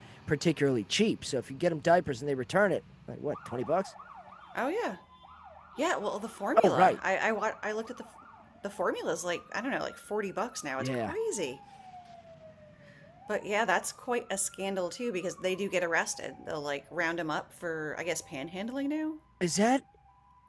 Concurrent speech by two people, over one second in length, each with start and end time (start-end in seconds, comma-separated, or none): none